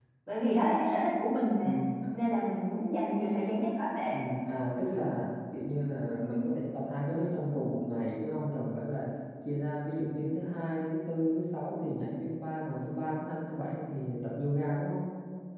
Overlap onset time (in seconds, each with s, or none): none